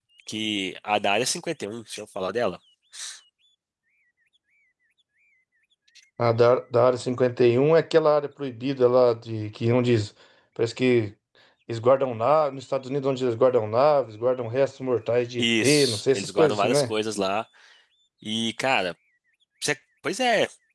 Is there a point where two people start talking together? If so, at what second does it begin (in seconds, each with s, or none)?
15.4 s